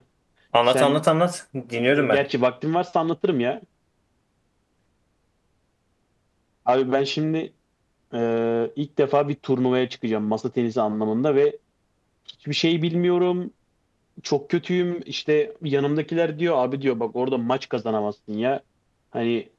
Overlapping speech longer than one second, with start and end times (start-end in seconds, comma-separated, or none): none